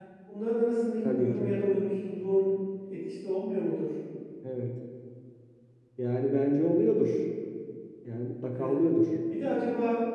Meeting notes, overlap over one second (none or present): none